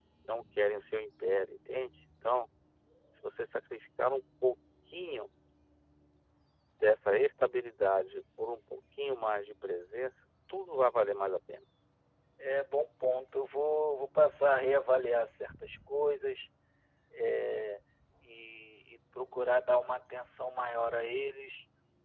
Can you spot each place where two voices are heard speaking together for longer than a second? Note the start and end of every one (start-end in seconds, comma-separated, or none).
none